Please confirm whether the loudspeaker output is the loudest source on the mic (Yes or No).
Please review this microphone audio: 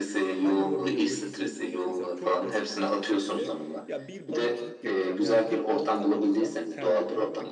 Yes